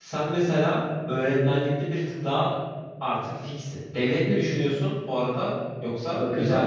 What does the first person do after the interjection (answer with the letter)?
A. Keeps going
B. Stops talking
B